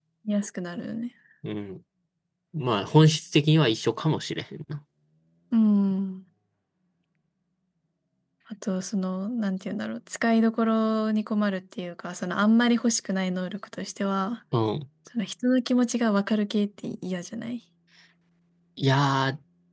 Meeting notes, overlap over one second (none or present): none